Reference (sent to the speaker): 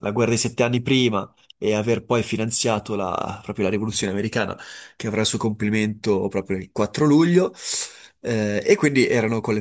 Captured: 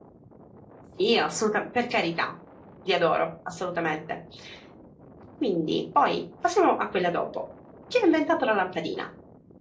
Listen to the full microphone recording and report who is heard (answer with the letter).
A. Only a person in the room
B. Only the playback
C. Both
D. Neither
A